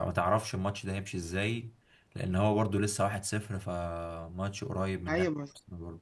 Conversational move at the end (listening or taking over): taking over